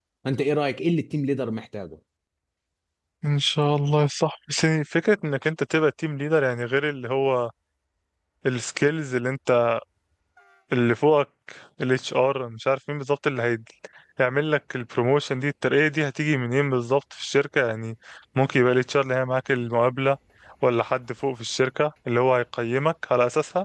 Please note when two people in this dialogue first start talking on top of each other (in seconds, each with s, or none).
none